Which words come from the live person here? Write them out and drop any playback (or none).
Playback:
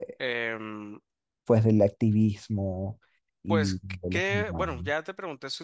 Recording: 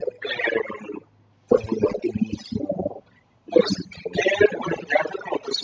none